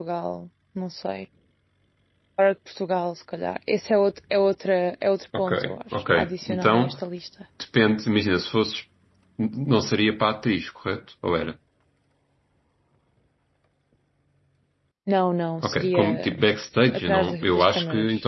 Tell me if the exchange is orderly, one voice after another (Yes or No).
No